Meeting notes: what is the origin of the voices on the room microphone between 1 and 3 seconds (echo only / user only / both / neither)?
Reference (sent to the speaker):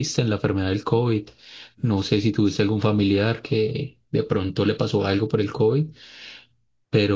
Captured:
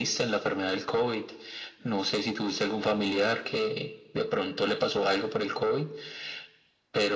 echo only